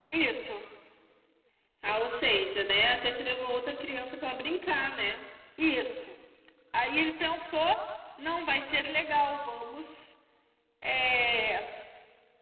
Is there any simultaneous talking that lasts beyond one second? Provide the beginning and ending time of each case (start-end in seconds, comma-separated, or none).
none